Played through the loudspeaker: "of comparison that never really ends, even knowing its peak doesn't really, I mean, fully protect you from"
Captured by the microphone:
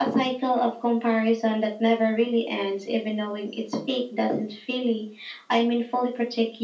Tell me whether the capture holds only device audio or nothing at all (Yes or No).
Yes